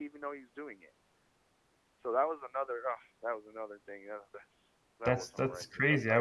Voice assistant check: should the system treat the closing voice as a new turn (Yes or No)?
Yes